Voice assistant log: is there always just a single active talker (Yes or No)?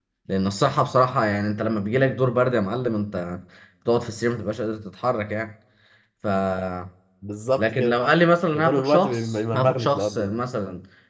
No